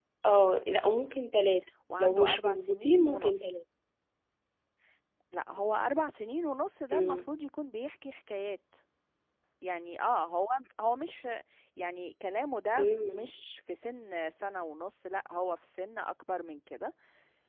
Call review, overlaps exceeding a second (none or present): present